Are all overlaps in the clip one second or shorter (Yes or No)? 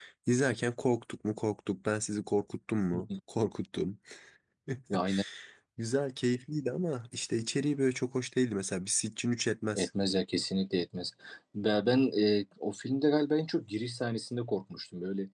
Yes